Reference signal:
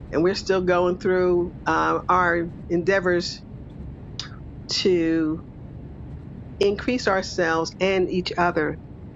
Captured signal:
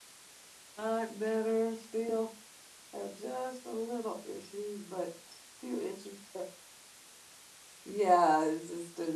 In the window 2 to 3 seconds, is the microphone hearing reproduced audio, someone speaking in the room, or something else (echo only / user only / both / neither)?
user only